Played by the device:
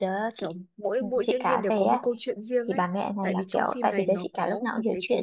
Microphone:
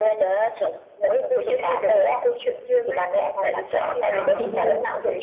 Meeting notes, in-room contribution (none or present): present